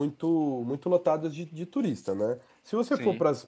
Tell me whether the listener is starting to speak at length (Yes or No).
No